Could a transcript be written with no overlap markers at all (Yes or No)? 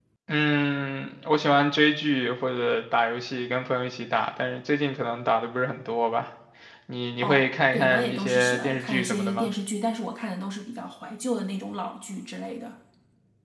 No